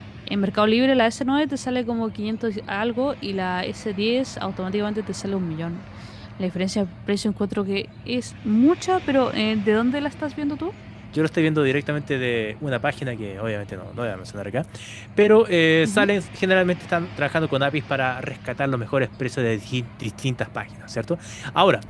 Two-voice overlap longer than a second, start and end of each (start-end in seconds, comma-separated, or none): none